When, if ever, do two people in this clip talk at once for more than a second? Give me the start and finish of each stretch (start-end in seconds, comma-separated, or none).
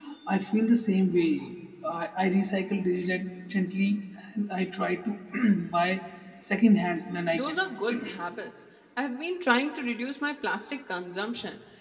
none